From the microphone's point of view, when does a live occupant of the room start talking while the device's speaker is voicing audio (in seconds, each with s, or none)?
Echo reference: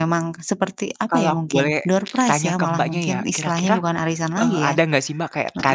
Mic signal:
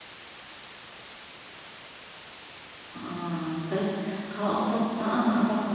2.9 s